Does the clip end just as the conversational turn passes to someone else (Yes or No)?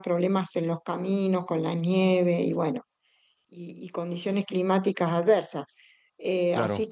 No